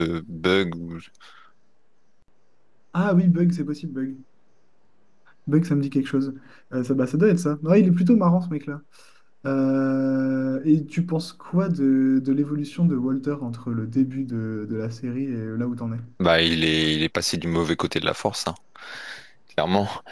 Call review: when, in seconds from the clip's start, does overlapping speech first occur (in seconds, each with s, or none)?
none